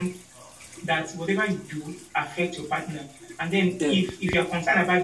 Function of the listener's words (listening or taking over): listening